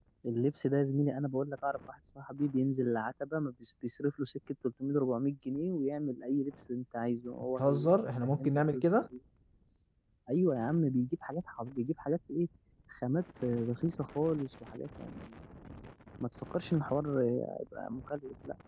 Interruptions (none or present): present